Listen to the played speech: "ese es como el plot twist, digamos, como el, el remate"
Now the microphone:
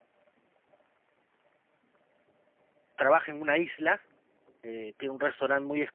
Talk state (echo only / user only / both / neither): user only